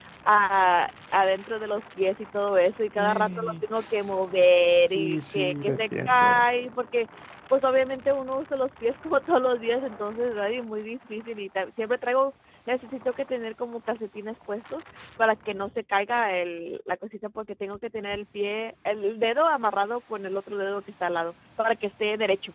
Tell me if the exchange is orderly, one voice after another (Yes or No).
No